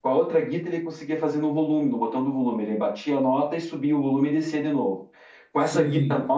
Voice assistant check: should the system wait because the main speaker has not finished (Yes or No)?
Yes